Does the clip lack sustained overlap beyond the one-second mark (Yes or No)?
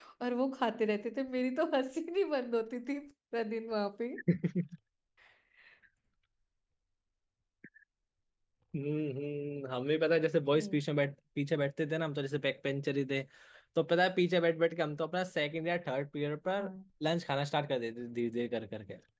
Yes